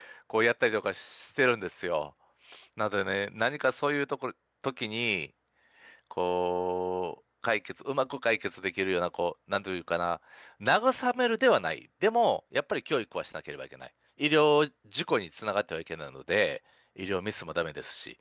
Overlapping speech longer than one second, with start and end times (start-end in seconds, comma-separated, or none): none